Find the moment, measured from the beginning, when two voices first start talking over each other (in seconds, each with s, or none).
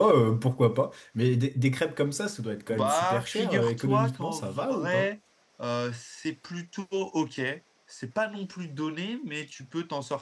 2.7 s